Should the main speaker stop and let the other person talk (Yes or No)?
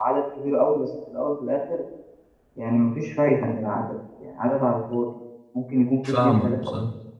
No